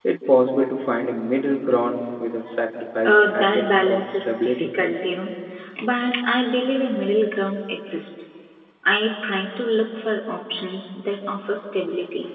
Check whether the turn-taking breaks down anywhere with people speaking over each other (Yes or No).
Yes